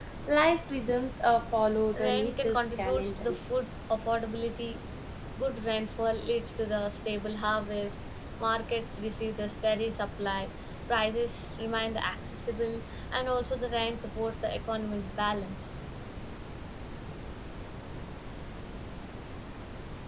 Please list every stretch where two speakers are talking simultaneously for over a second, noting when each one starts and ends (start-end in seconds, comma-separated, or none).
1.9-3.3